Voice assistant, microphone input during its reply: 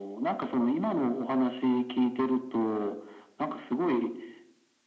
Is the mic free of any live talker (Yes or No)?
Yes